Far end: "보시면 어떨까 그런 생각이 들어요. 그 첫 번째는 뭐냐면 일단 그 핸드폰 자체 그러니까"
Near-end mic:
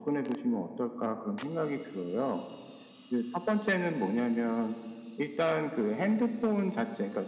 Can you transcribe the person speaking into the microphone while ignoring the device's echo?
none

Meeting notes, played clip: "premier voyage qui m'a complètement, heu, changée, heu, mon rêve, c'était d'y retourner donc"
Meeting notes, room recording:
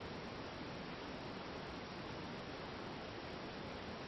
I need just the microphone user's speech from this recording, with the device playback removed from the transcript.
none

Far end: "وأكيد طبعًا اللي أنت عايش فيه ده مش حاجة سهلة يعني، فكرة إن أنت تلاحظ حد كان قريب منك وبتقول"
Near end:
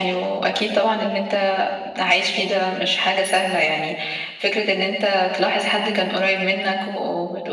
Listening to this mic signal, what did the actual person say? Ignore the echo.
none

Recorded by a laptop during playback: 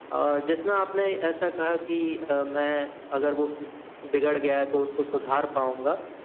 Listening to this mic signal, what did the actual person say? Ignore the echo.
none

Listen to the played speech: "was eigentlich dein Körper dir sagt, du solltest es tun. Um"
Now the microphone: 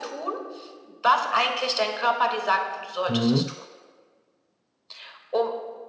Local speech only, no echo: Mhm,

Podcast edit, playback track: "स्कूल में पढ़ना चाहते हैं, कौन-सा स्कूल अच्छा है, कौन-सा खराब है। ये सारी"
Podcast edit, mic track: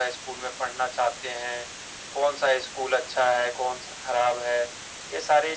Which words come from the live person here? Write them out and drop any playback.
none

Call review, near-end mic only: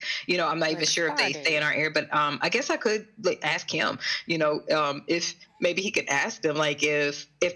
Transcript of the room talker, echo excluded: like spa days.

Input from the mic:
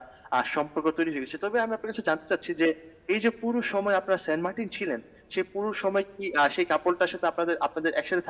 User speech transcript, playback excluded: none

